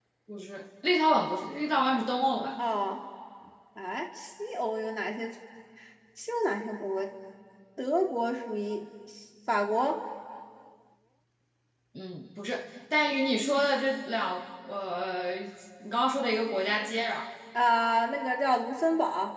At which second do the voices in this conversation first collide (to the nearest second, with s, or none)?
none